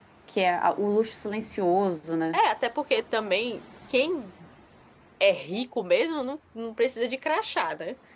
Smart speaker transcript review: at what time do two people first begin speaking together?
none

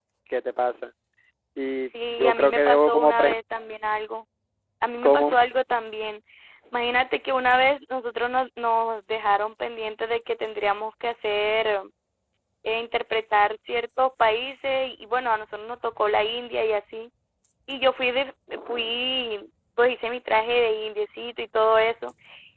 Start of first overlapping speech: 2.1 s

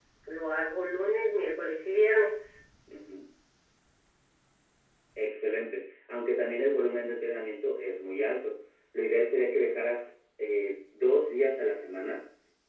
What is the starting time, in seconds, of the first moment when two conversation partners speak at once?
none

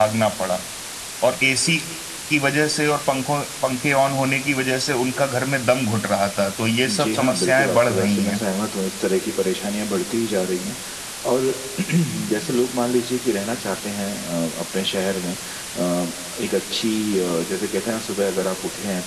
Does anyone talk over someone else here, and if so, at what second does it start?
6.9 s

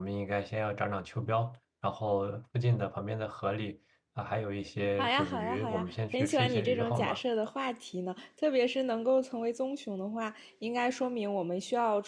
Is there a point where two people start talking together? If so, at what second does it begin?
5.0 s

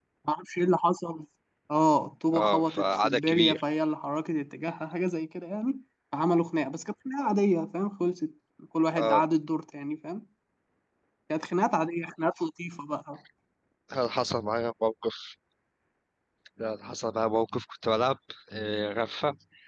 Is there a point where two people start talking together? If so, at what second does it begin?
2.3 s

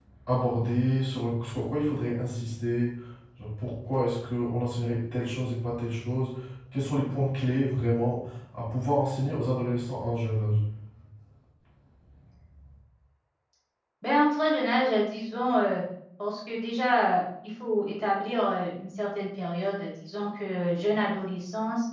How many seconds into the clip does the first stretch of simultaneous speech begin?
none

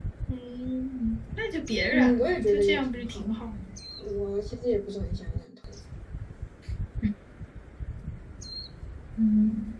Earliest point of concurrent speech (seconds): 1.9 s

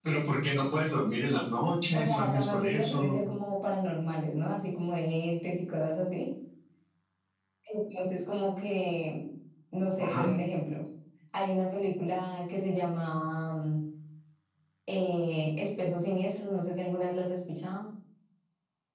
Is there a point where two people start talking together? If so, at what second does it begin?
1.9 s

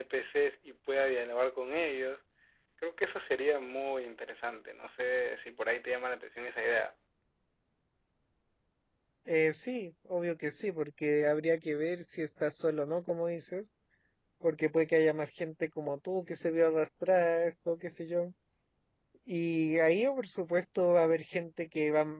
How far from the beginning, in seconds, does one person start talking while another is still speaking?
none

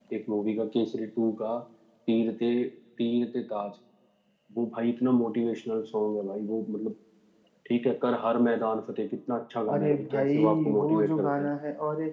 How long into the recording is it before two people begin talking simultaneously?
9.7 s

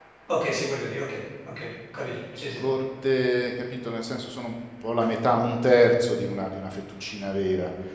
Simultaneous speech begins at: none

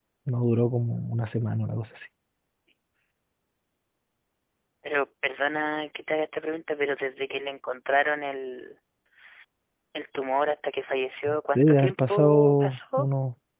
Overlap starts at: 11.6 s

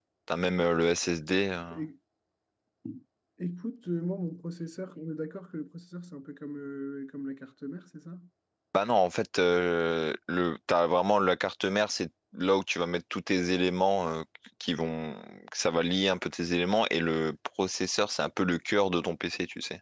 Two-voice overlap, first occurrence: none

